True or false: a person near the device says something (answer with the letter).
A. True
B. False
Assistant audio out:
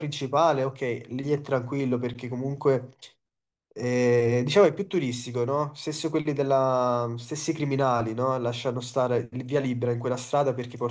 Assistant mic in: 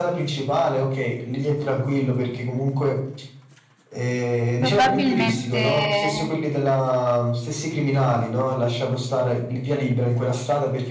A